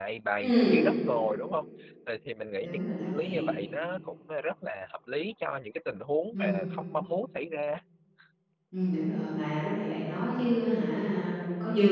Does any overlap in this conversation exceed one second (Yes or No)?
No